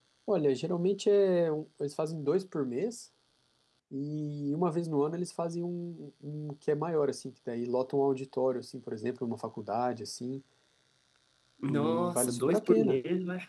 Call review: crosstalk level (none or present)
present